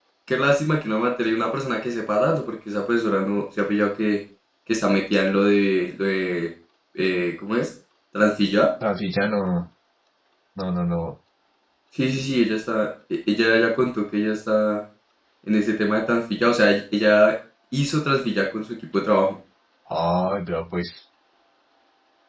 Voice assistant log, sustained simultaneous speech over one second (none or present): none